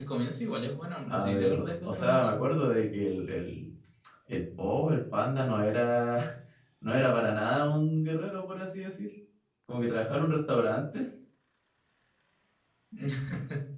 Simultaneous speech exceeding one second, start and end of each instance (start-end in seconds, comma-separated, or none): 1.1-2.4